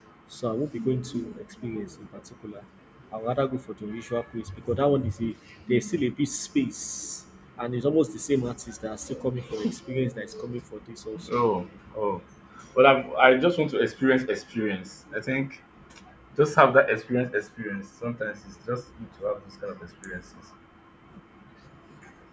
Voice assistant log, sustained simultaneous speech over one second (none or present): none